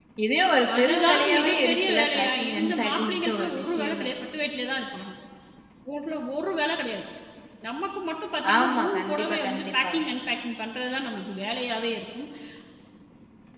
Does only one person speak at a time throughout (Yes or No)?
No